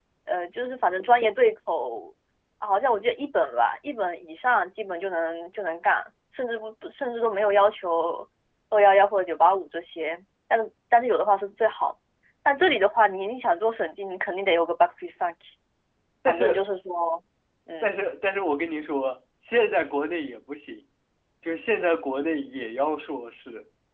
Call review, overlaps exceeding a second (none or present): none